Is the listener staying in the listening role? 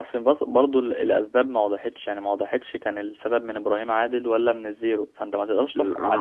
No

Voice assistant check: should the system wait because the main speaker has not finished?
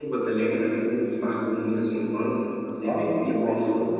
No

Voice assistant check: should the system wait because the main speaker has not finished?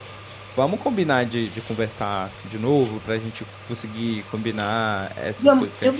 No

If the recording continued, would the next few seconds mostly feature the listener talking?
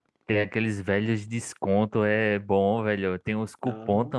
No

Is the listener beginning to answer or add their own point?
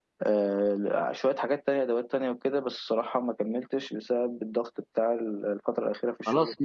Yes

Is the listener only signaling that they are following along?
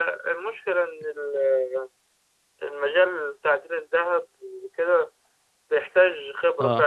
Yes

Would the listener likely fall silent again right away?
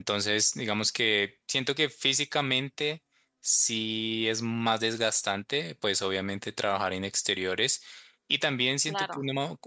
Yes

